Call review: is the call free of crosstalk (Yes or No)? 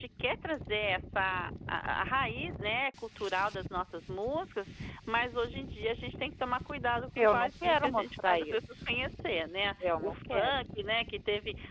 No